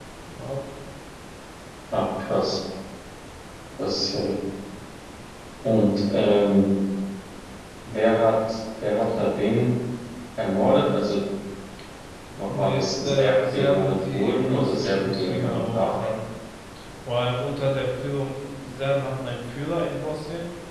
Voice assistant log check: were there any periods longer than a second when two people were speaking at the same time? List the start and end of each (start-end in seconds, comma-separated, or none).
12.5-16.1